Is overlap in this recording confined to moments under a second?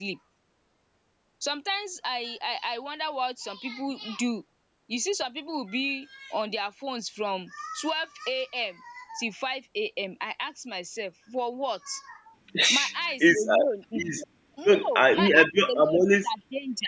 No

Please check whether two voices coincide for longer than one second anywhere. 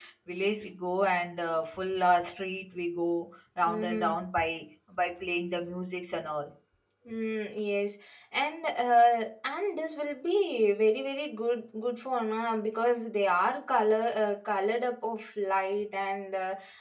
No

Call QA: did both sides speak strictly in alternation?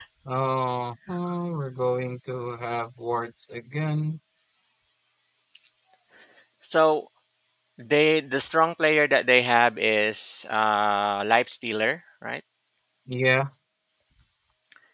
Yes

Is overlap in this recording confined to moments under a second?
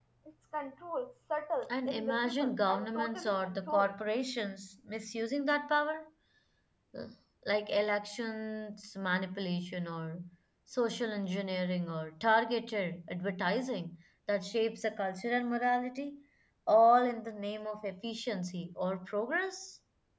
No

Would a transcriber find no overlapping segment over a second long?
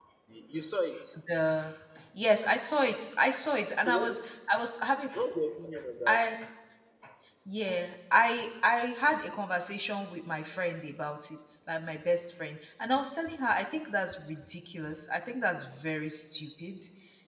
Yes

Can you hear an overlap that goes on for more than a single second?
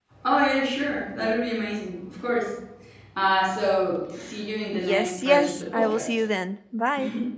Yes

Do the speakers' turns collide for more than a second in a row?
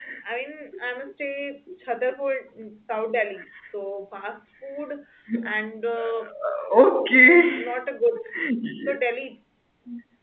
No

